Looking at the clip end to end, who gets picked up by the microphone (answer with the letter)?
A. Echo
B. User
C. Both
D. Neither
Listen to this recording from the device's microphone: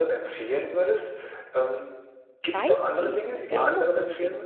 C